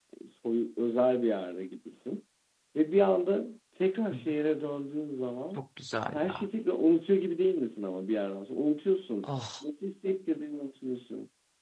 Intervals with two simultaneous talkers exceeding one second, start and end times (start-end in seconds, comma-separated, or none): none